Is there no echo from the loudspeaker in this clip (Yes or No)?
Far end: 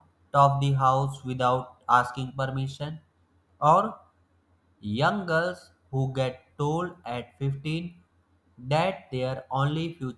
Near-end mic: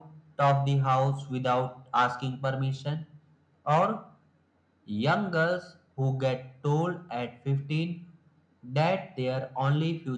No